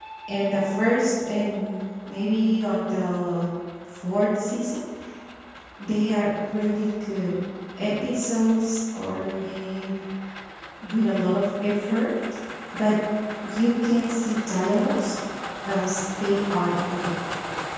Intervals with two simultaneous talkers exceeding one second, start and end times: none

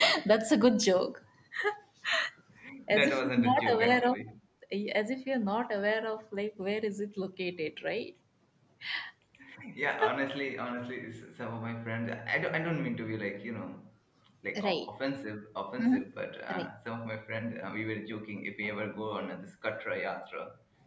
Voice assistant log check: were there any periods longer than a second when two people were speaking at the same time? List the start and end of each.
2.9-4.2

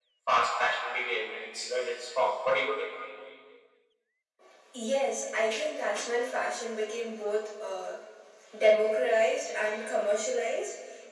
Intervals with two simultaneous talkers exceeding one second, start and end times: none

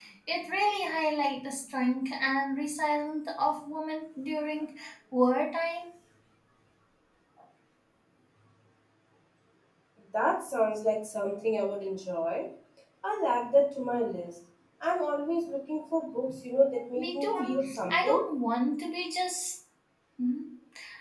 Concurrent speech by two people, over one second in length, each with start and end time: 17.0-18.2

